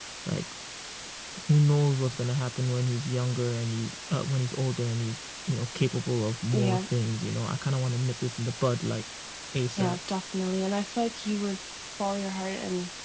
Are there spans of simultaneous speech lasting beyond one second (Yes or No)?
No